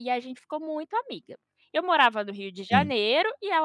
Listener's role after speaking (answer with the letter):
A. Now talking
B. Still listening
B